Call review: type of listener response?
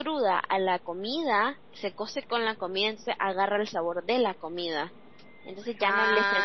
taking over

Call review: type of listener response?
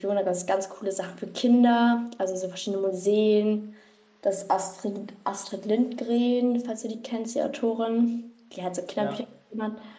listening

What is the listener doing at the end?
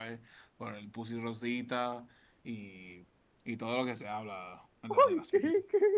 taking over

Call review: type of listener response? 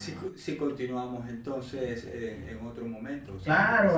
taking over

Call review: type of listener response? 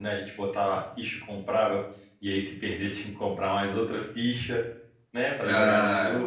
listening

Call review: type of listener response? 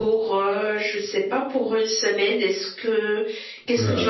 taking over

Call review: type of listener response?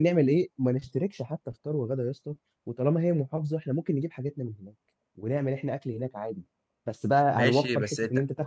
taking over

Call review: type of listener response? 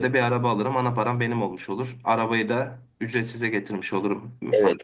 taking over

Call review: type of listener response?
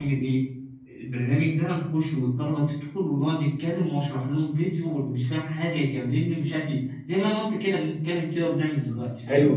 taking over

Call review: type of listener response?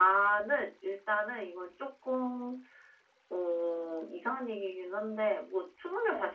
listening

